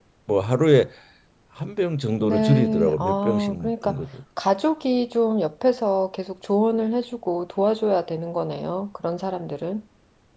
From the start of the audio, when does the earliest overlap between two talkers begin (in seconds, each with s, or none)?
2.2 s